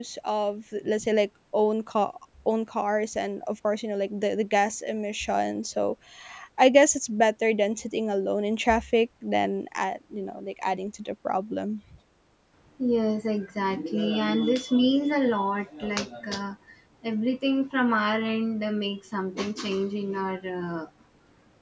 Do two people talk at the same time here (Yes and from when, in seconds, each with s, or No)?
No